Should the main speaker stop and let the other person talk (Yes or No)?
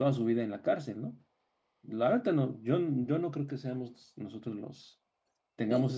No